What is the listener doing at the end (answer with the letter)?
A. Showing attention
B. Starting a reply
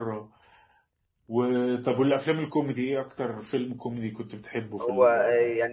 B